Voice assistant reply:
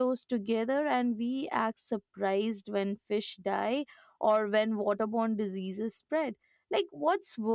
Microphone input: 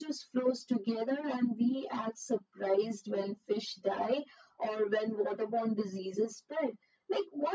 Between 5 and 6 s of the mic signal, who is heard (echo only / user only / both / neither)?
echo only